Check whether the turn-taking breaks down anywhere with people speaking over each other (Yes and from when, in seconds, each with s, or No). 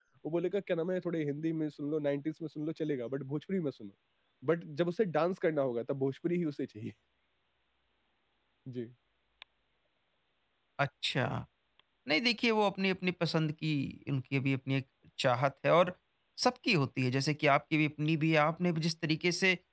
No